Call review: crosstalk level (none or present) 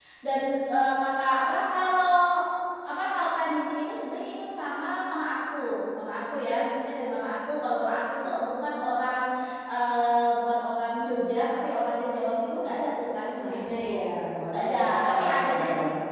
present